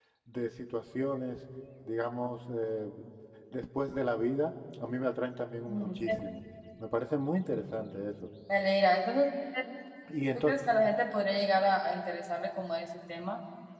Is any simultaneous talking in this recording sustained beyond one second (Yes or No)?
No